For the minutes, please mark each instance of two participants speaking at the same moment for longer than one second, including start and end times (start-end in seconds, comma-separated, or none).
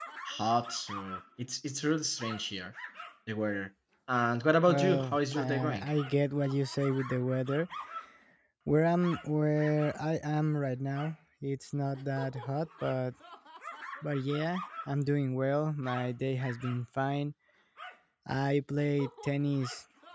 4.7-5.9